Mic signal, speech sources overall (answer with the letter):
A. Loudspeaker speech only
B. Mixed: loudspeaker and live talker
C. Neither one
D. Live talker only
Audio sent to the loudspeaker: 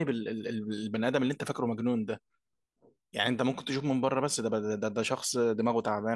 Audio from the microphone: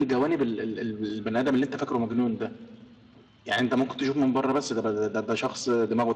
A